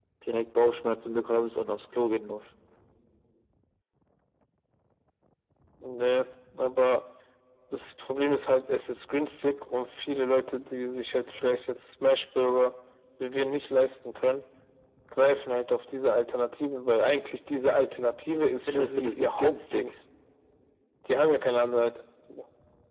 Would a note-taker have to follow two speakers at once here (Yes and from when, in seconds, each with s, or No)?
Yes, from 18.7 s